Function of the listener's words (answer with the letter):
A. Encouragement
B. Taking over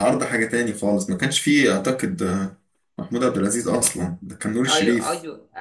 B